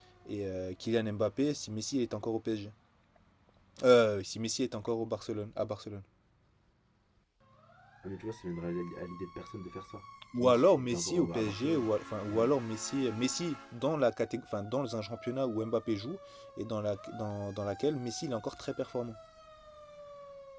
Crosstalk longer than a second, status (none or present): present